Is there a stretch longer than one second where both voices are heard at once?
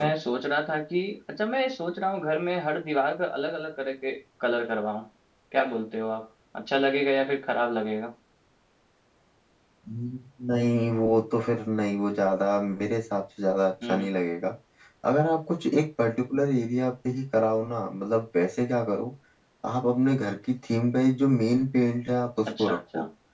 No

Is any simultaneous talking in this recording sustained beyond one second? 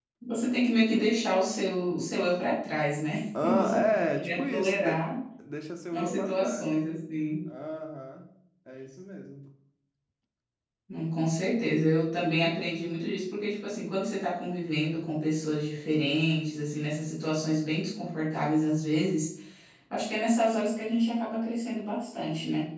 Yes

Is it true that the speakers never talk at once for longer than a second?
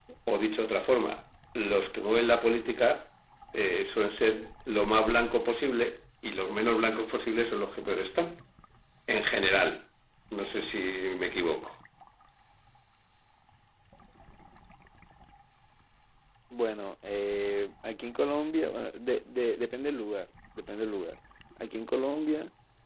Yes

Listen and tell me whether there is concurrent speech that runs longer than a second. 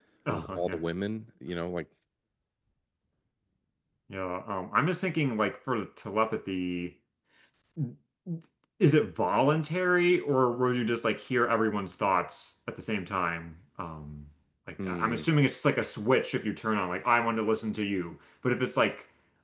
No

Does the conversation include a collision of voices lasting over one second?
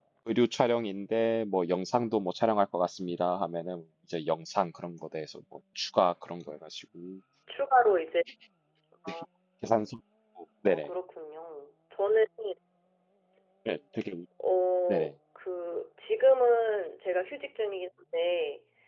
No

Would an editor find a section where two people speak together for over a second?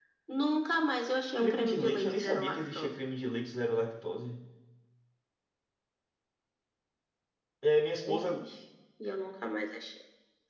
Yes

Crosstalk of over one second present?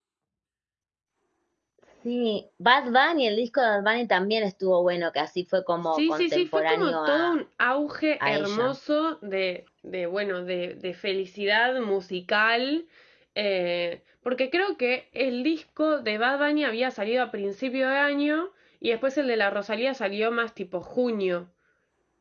Yes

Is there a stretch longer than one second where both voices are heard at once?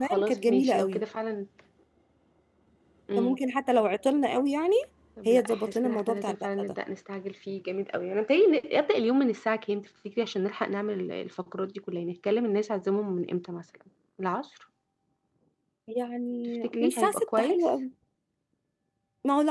Yes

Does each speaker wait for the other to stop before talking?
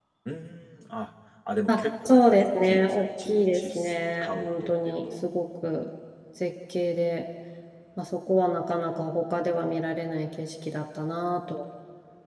No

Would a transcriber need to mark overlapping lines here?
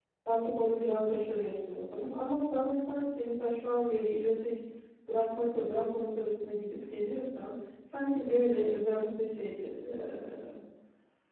No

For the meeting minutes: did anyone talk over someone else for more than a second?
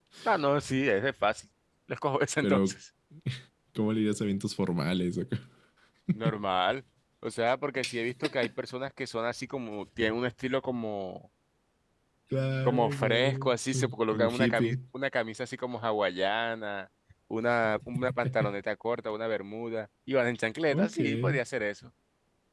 Yes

